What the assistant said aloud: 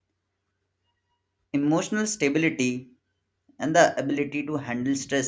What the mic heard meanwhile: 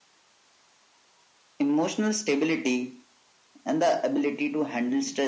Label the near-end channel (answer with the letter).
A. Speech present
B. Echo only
B